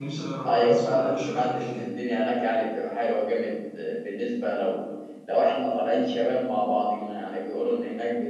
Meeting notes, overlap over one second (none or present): present